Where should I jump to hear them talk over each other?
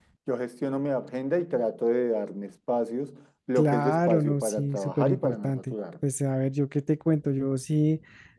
3.6 s

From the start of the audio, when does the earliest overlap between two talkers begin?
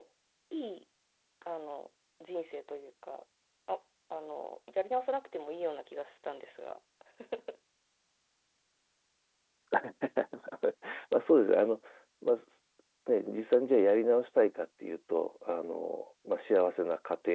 none

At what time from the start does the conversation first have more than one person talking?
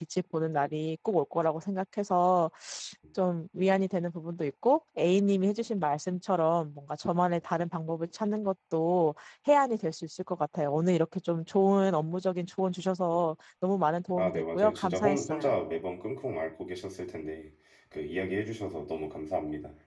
14.1 s

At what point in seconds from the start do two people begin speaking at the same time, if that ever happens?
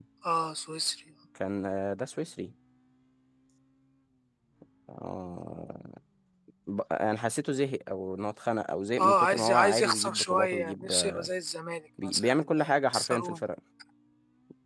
9.0 s

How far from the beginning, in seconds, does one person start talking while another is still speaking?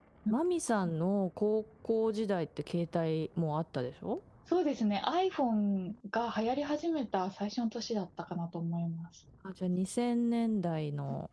none

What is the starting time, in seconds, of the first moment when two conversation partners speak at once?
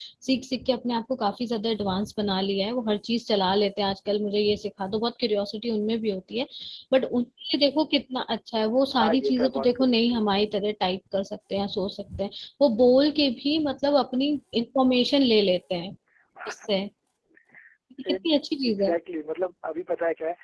8.9 s

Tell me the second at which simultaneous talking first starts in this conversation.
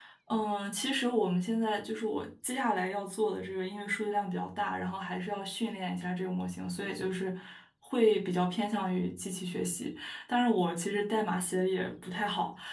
none

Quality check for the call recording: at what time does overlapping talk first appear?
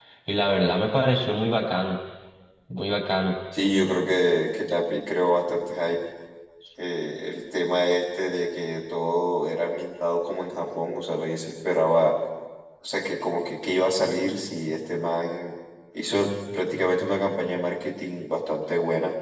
none

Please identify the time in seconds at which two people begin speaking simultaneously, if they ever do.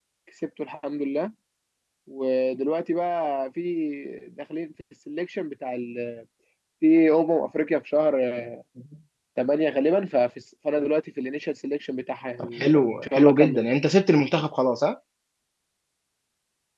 12.4 s

